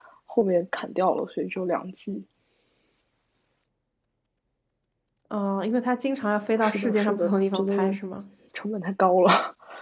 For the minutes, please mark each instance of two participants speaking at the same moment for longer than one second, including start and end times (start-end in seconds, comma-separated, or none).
6.6-8.0